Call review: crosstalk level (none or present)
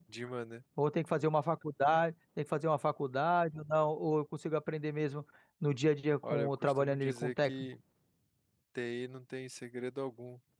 present